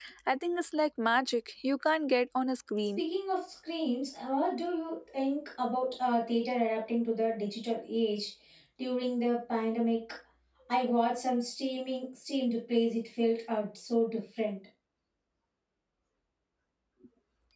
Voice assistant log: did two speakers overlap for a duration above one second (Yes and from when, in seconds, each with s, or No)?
No